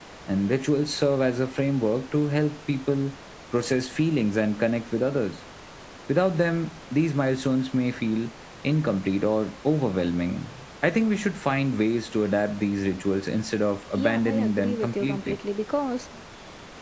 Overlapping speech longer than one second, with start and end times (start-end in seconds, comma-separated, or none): 14.0-15.4